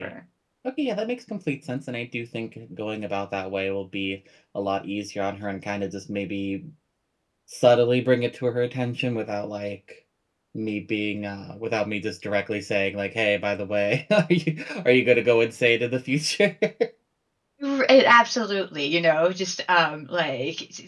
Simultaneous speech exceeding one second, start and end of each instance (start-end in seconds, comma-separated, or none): none